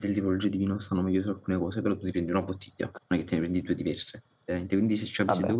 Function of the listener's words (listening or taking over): listening